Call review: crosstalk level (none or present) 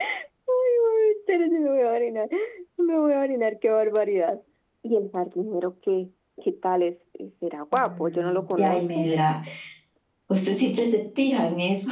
present